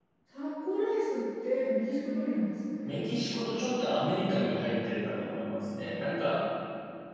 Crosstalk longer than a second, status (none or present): none